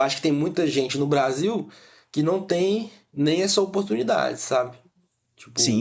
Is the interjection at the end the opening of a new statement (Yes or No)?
Yes